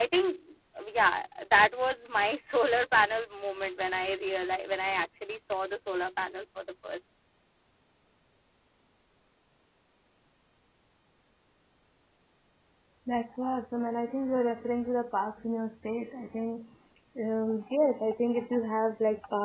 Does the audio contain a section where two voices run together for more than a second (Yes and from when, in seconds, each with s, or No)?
No